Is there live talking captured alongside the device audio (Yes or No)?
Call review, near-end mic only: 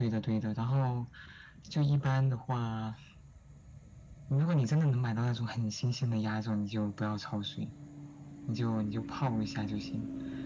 No